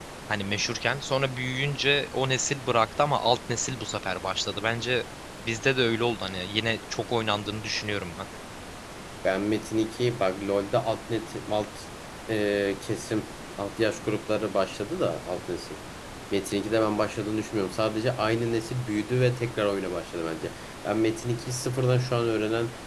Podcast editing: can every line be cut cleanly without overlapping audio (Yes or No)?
Yes